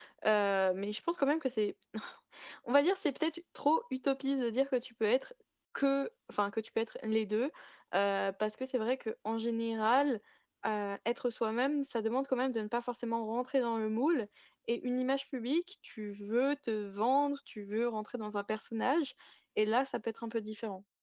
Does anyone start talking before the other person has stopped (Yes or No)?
No